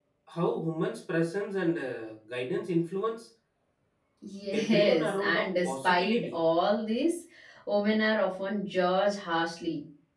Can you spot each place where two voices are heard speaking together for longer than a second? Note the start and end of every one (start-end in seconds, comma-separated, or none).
4.5-6.4